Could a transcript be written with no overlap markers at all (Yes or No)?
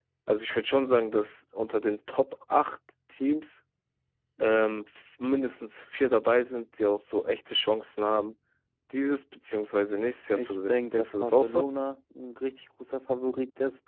No